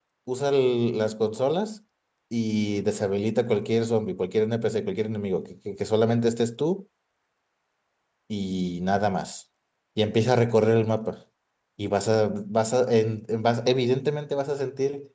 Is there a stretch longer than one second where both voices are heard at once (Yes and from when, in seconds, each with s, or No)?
No